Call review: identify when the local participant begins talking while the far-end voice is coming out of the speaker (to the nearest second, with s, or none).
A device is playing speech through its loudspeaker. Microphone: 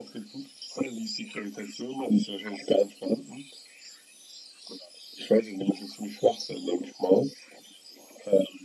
none